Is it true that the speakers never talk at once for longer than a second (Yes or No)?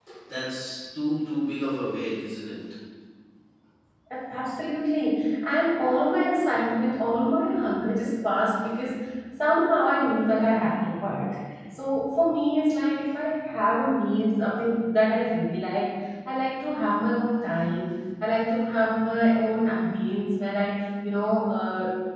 Yes